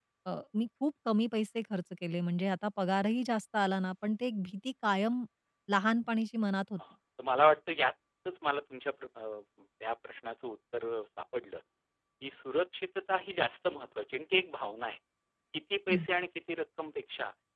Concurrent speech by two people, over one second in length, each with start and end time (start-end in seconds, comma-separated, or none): none